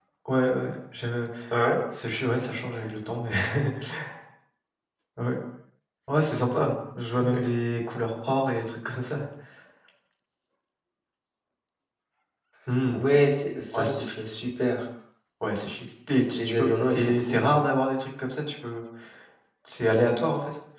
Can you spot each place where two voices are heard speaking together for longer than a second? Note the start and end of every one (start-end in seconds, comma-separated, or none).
16.3-17.5